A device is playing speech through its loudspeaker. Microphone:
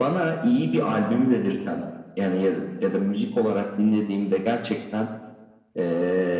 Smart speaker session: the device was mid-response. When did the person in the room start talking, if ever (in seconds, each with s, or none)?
none